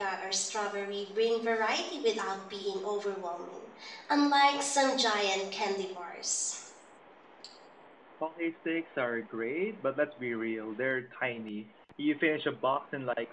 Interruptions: none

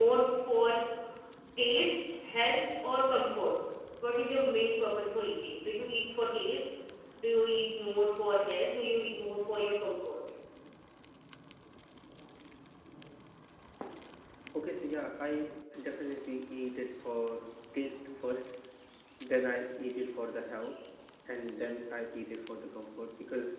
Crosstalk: none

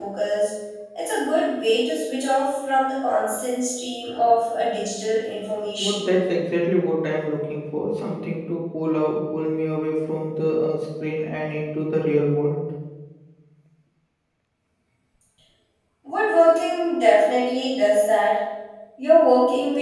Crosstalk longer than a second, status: none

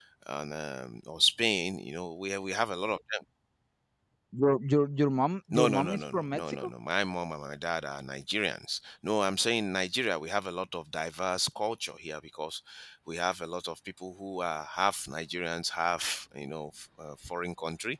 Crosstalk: present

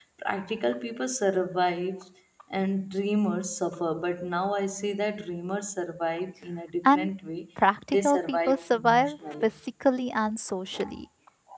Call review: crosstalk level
present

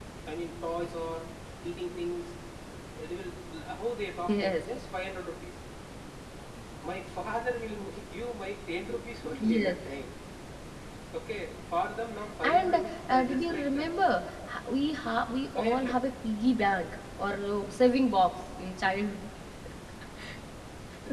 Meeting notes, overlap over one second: present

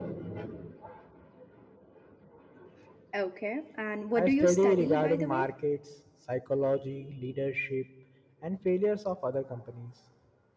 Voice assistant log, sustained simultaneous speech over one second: present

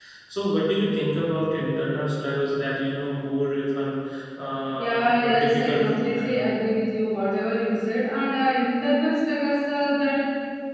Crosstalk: present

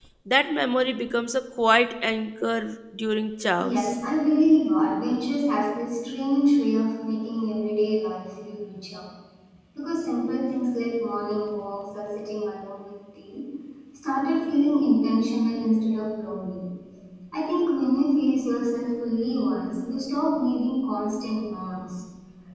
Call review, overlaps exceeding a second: none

